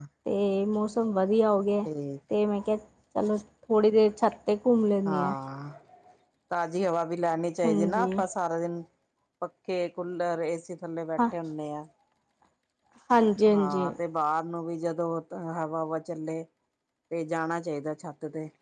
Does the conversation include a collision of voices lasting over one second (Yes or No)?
No